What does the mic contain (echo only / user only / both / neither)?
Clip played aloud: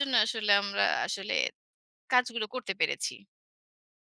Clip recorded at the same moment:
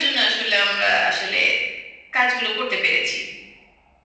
echo only